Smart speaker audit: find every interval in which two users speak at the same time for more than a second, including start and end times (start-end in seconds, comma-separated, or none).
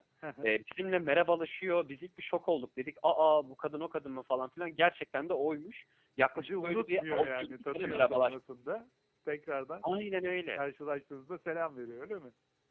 6.4-8.3